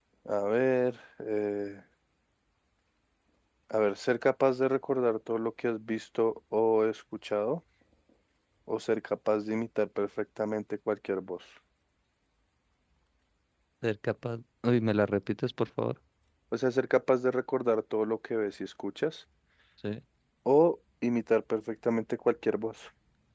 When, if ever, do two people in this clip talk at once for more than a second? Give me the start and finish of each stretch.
none

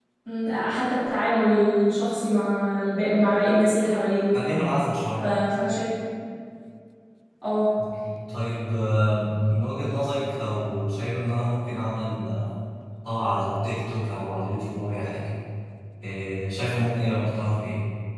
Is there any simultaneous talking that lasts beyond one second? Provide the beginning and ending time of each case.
none

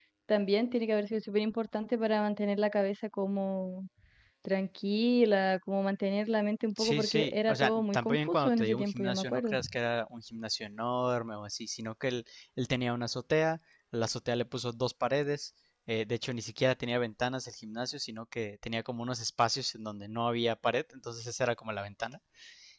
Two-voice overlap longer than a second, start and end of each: 6.8-9.6

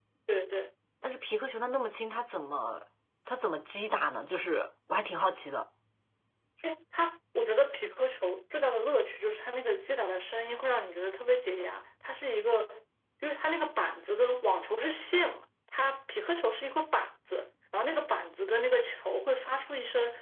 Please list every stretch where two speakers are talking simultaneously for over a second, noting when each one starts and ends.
none

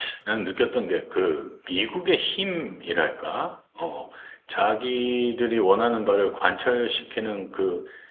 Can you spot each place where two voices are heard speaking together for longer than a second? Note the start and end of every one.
none

